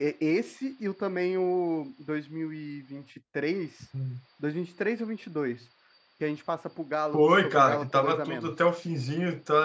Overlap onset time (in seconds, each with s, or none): 7.1 s